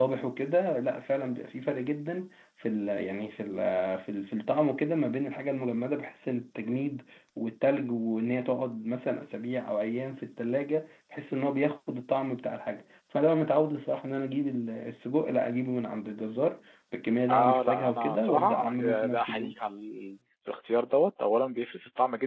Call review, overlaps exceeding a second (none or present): present